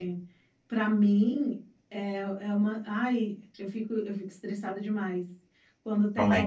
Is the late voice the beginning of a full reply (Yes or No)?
No